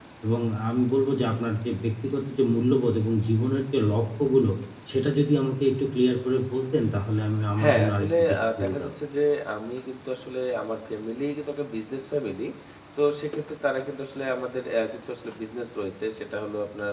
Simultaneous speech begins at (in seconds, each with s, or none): 7.6 s